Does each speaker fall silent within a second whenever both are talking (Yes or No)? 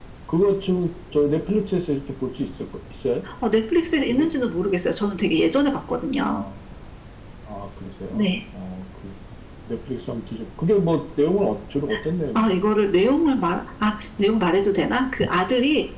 Yes